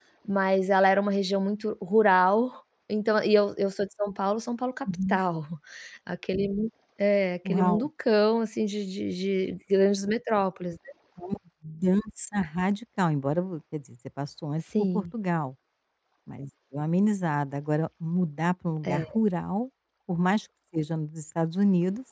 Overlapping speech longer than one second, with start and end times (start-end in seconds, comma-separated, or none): none